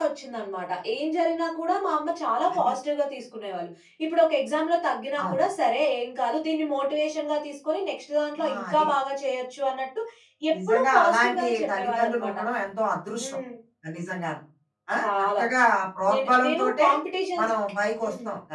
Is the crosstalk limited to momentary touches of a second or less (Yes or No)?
No